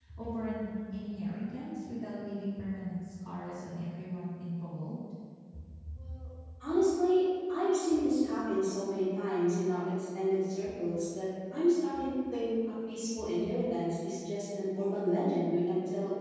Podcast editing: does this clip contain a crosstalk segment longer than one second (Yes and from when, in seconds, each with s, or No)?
No